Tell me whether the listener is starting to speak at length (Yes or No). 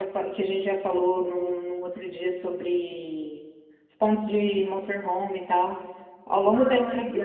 No